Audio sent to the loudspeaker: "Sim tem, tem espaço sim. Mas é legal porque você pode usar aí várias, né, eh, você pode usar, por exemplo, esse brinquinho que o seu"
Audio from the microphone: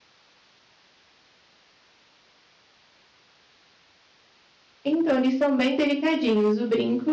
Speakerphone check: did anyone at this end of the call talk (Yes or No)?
Yes